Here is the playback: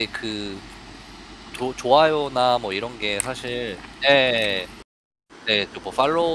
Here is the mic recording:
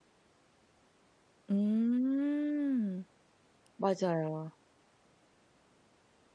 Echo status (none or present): none